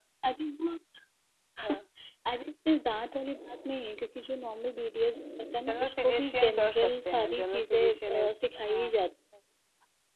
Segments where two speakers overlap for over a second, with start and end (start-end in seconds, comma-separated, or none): 5.7-8.3